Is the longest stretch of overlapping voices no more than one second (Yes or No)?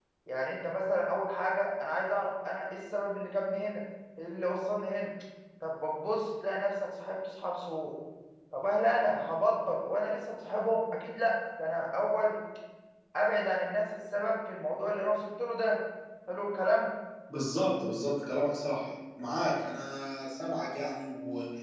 Yes